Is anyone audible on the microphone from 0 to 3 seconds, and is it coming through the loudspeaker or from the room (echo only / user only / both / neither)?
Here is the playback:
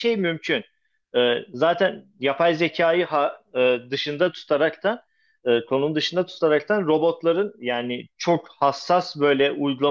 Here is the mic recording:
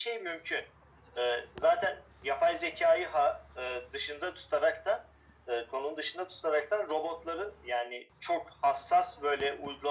echo only